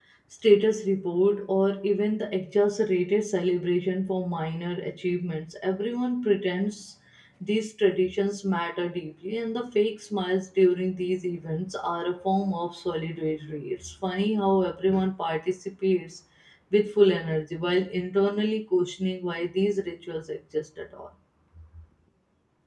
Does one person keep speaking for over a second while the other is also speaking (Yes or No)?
No